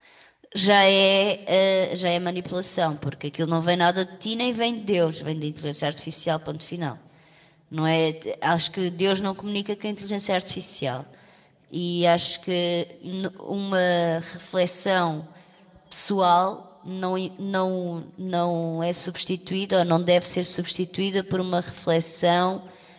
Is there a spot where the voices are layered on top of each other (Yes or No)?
No